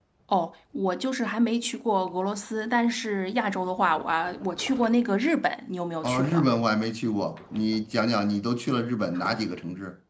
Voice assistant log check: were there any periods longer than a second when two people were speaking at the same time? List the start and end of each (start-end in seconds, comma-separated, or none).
none